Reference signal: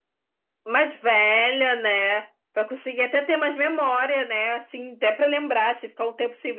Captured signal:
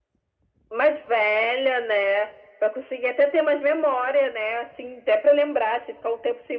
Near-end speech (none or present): none